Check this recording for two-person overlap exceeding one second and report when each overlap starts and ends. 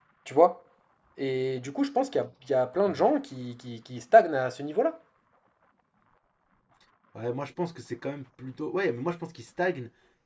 none

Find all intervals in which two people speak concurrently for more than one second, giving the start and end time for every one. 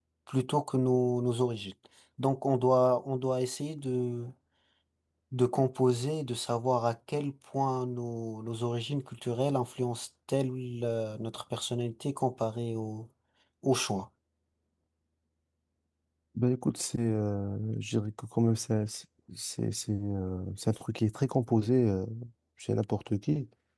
none

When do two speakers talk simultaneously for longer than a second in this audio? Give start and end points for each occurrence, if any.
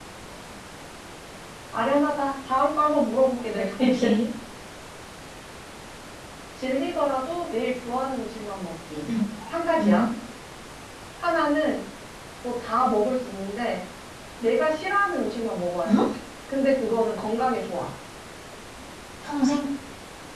none

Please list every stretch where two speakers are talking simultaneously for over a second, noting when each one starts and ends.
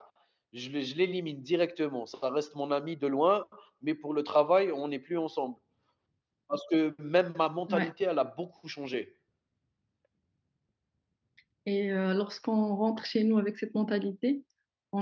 none

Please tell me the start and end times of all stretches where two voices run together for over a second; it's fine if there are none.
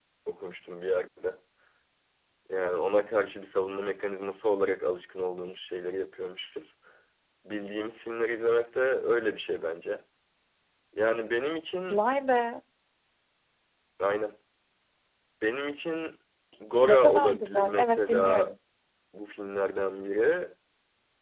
16.9-18.5

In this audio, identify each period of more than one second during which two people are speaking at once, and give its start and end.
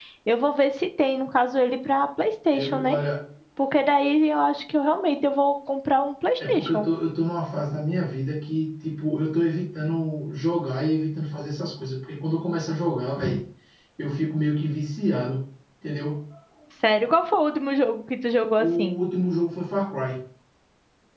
none

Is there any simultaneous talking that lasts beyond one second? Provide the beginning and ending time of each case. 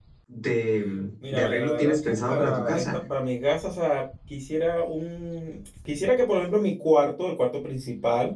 1.3-3.0

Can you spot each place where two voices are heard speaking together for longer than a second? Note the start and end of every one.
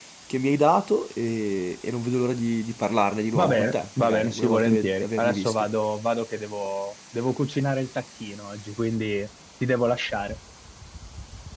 3.4-5.5

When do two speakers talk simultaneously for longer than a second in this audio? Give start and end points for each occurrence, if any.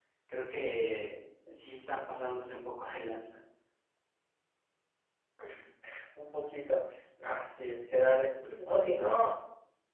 none

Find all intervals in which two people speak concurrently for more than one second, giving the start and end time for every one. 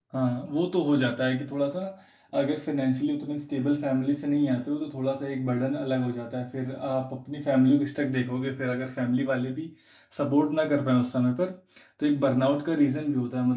none

